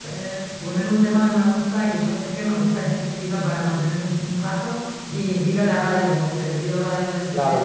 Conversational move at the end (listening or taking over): taking over